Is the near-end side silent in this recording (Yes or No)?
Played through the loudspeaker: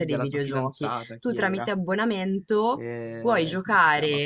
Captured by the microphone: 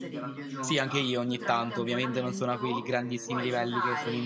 No